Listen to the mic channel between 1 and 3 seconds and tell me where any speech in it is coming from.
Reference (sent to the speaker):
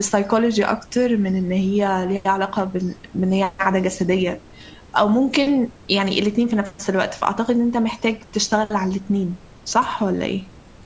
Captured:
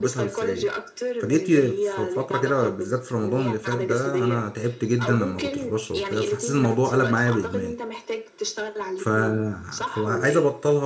both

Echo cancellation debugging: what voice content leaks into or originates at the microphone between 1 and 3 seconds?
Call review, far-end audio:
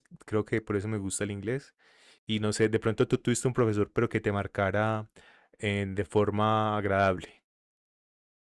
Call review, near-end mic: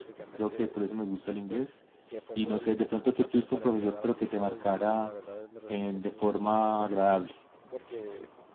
both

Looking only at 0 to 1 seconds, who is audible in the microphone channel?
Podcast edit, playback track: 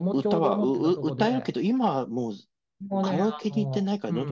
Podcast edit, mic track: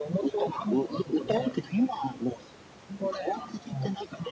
echo only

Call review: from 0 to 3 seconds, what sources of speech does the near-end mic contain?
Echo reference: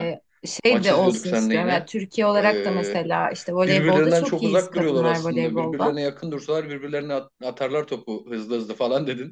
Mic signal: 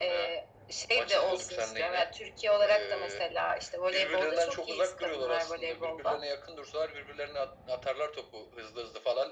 echo only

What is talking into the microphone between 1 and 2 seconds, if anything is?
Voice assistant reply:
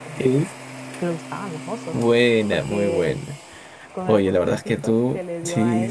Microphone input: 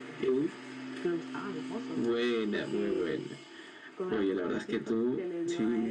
echo only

